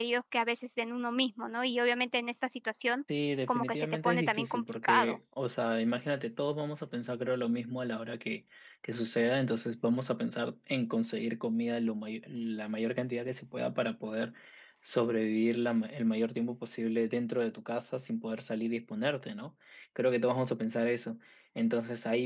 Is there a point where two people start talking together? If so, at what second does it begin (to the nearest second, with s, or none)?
3 s